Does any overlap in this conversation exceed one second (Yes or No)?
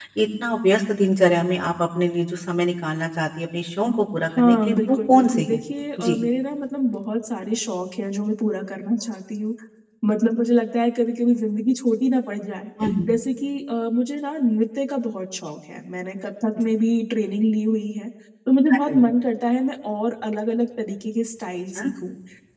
Yes